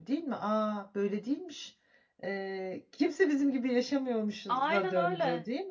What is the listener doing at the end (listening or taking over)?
taking over